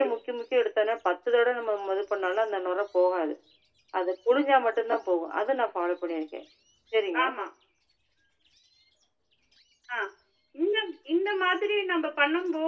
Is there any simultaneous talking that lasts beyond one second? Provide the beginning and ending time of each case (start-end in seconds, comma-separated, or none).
none